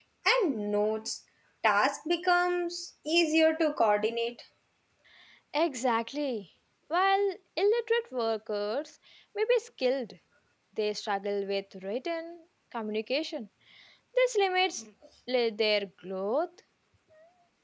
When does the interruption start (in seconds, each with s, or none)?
none